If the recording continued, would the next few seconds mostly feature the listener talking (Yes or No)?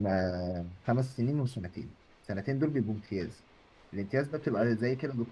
No